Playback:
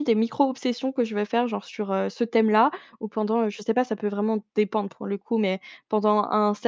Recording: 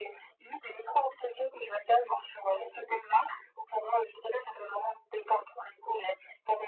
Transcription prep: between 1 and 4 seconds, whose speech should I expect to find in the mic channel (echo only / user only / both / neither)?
echo only